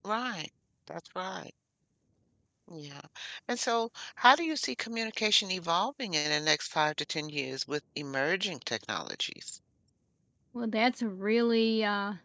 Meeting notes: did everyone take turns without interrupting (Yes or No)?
Yes